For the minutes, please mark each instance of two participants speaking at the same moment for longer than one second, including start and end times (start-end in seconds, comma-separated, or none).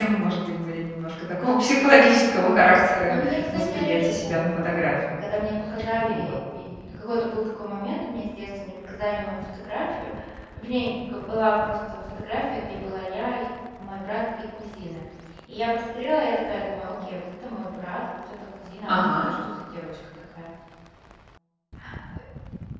3.1-5.1